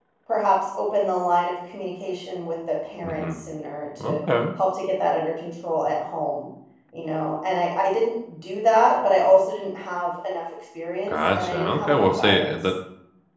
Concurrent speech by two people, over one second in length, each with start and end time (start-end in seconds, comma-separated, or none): 11.1-12.5